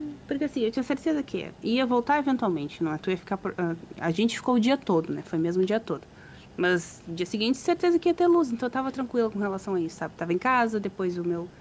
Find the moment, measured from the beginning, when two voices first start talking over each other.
none

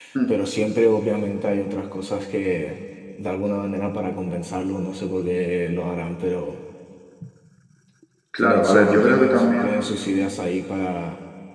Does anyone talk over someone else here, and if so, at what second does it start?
8 s

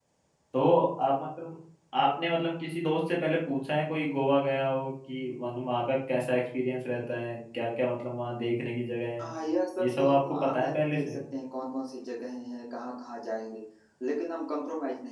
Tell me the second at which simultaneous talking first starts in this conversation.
10 s

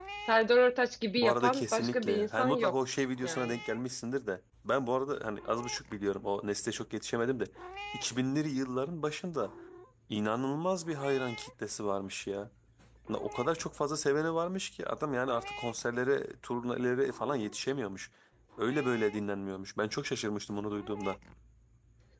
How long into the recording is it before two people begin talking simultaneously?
1 s

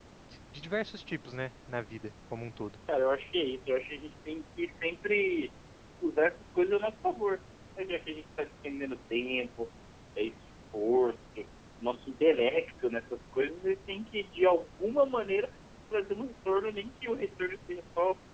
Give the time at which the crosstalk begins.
none

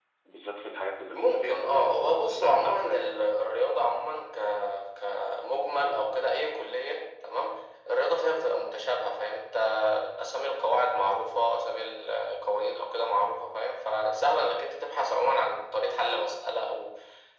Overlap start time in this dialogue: 1 s

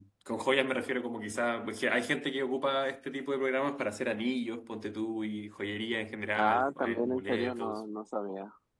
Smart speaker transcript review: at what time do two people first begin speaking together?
6 s

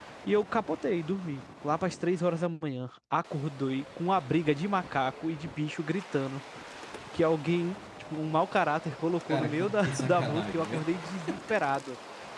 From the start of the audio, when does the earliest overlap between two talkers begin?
9 s

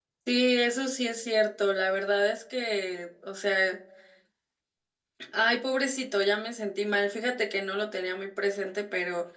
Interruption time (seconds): none

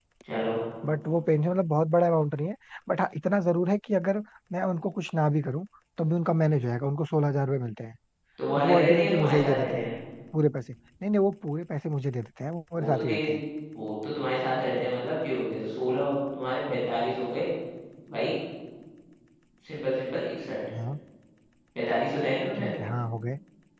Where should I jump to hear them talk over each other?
9 s

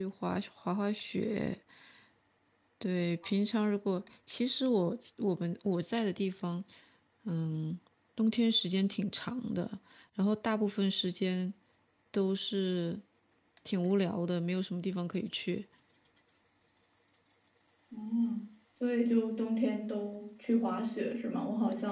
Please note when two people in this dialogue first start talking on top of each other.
none

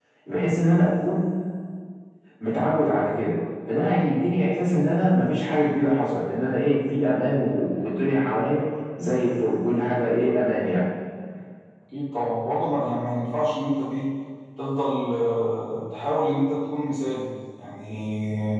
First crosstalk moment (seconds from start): none

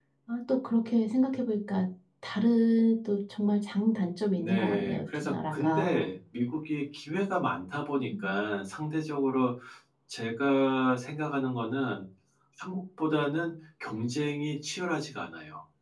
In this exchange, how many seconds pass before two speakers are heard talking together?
4 s

